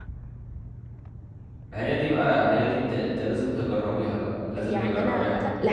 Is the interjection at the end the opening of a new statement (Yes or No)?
Yes